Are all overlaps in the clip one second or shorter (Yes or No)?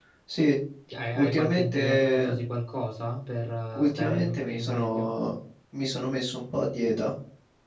No